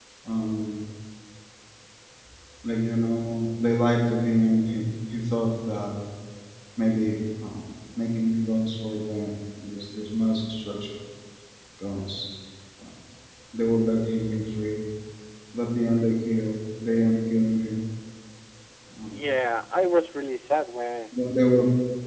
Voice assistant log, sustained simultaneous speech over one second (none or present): none